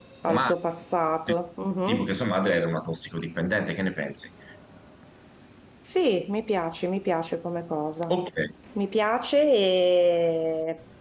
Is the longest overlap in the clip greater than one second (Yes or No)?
No